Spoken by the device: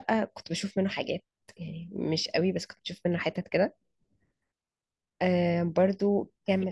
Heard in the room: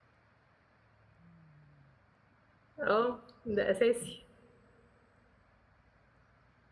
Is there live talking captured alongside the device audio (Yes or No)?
Yes